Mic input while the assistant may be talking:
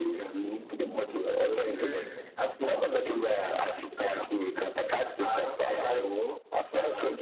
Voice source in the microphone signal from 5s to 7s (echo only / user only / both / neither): echo only